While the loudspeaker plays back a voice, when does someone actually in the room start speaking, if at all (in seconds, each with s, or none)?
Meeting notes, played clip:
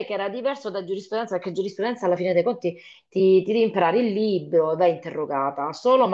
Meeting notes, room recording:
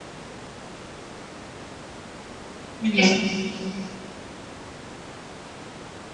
2.8 s